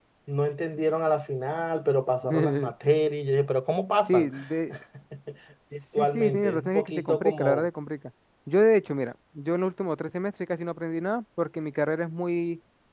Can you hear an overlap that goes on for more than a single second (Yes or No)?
Yes